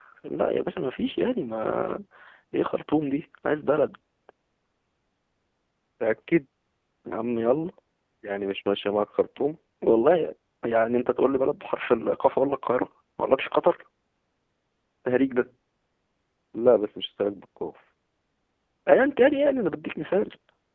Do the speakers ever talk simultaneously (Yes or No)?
No